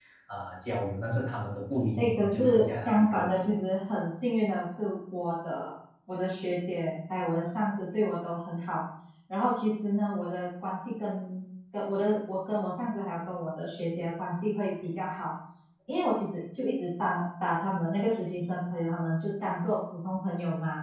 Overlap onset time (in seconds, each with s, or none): 2.0 s